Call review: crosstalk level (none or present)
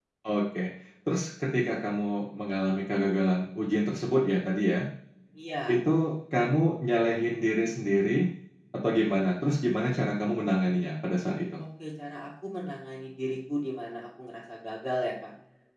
none